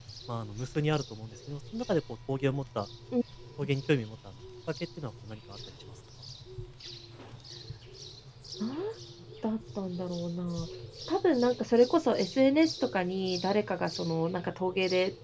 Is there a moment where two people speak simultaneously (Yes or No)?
No